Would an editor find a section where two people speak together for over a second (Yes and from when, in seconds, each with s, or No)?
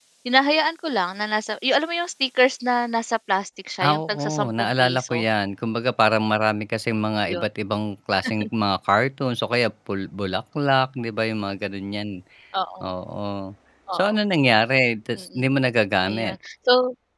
Yes, from 3.8 s